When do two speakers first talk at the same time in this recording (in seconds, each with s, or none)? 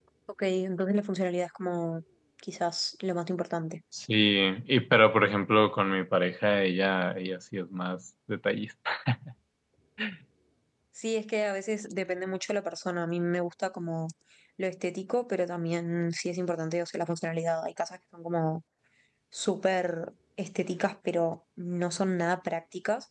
none